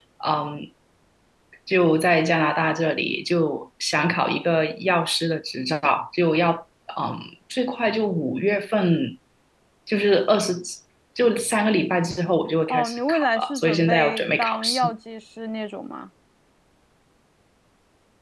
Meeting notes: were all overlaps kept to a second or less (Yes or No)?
No